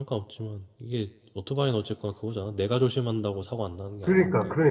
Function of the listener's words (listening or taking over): taking over